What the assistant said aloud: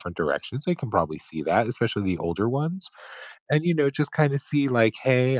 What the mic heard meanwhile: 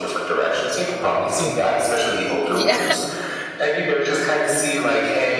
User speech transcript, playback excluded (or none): Mhm. Yeah.